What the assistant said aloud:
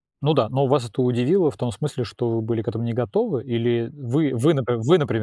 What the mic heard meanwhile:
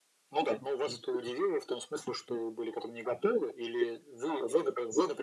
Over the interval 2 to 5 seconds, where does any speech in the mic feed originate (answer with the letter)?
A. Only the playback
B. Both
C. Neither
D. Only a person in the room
A